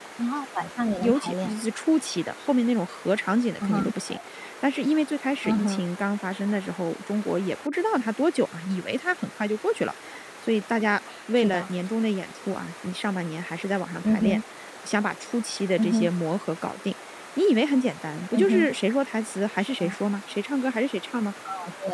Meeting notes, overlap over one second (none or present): none